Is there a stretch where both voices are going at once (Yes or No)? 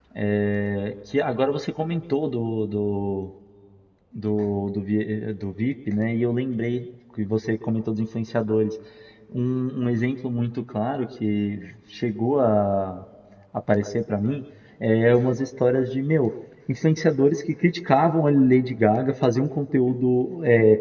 No